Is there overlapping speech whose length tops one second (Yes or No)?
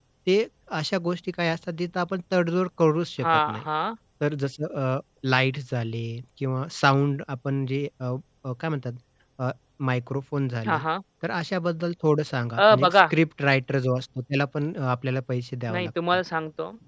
No